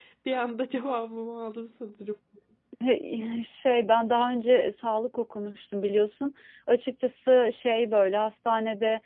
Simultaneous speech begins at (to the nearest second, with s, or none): none